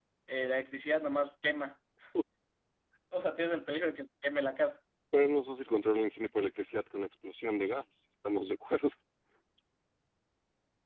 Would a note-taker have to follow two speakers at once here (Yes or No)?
No